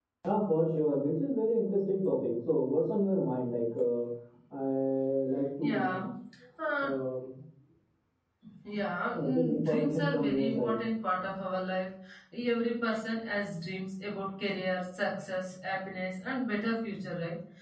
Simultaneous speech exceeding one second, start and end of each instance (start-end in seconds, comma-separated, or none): 9.1-10.8